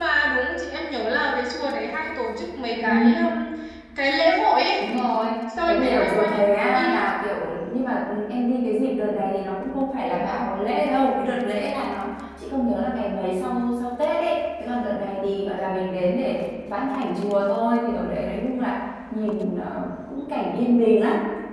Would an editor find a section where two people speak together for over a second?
Yes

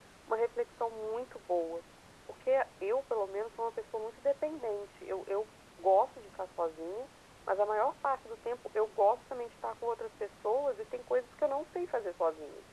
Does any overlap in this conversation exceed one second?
No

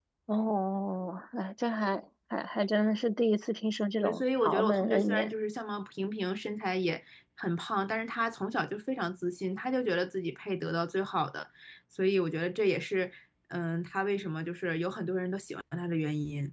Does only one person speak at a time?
No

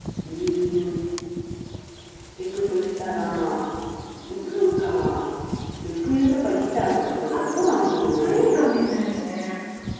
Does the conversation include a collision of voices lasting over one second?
No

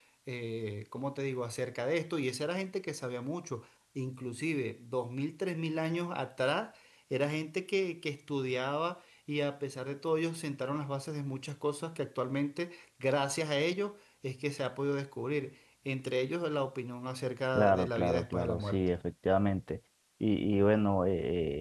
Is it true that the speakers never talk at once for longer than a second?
No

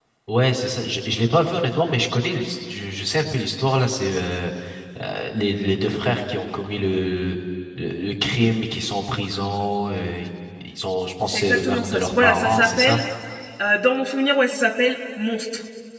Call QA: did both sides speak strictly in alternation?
No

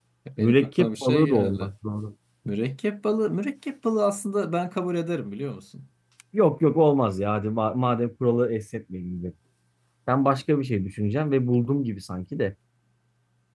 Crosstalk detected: Yes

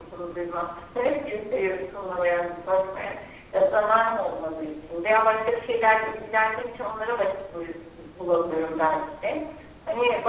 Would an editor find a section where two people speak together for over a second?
No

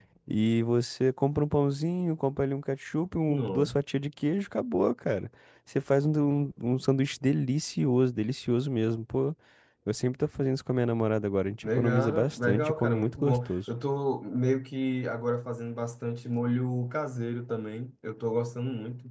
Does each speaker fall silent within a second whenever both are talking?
No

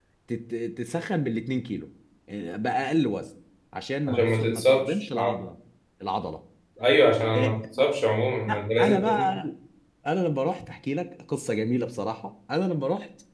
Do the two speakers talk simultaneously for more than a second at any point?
Yes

